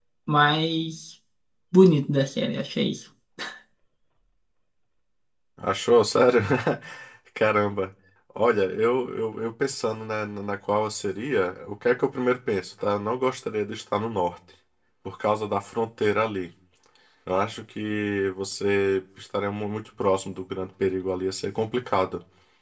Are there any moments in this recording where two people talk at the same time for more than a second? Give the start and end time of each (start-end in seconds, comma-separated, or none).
none